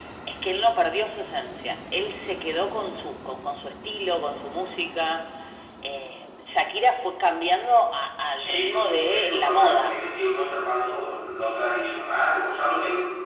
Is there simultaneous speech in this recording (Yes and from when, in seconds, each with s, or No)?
Yes, from 8.4 s